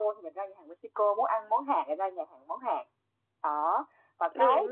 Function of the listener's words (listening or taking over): listening